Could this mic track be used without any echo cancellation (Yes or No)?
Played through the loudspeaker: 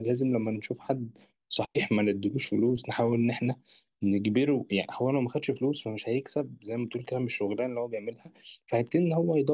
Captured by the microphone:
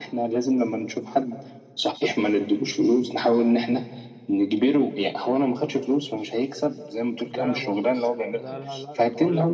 No